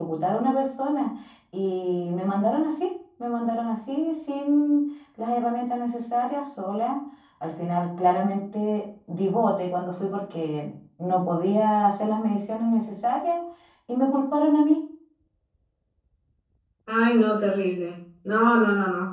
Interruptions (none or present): none